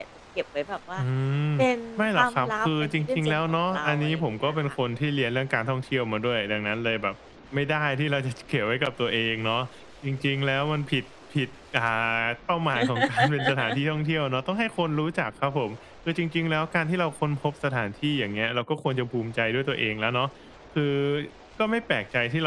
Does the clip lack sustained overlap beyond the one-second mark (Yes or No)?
No